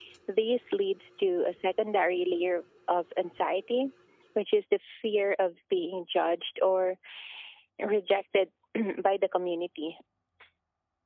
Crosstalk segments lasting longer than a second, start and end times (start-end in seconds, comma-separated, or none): none